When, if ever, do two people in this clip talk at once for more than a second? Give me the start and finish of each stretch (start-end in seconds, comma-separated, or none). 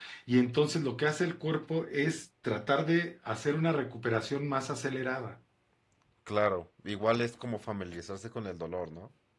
none